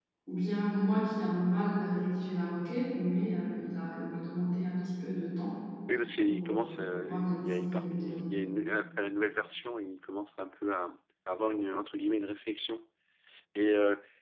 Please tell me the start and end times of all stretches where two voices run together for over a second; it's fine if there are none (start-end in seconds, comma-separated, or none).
6.2-8.2